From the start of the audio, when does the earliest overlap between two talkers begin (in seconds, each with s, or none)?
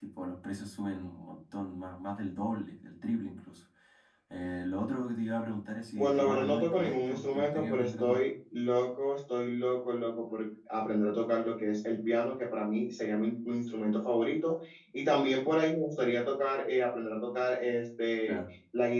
6.0 s